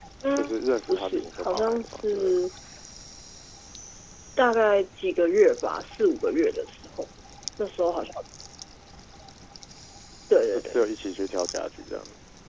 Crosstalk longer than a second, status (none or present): present